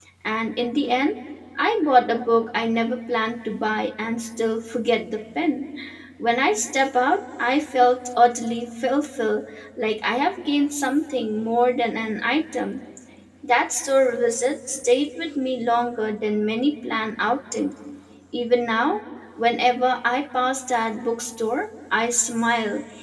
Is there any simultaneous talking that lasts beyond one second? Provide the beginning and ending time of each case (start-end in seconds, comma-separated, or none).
none